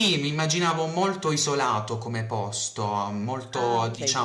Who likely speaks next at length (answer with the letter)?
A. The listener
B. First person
B